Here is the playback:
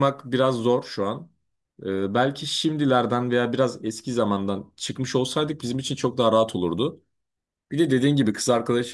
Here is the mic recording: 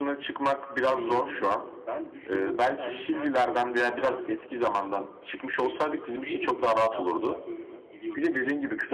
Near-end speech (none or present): present